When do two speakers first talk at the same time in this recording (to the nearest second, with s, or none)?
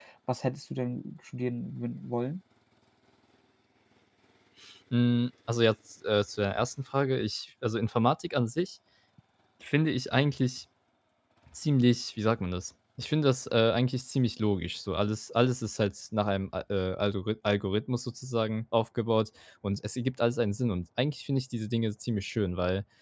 none